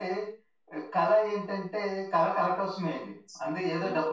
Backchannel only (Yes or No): Yes